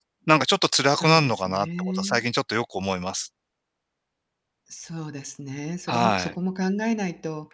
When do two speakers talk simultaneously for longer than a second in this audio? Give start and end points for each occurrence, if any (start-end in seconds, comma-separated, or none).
0.8-2.2